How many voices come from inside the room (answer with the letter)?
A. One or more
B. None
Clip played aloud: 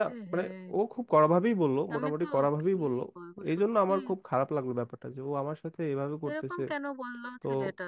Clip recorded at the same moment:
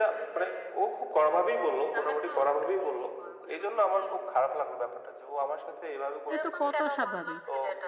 A